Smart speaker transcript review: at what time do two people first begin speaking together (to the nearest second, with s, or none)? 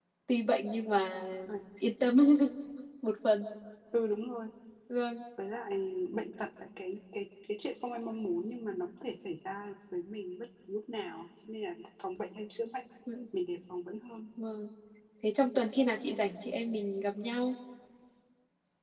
none